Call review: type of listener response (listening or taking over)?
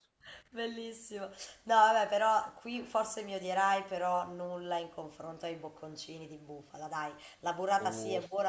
listening